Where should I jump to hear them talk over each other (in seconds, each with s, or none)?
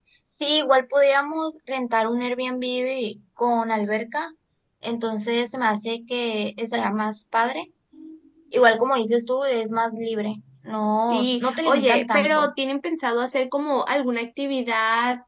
11.1 s